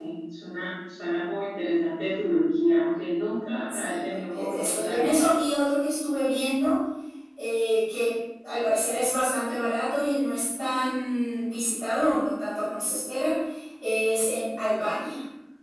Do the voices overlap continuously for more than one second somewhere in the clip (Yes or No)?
Yes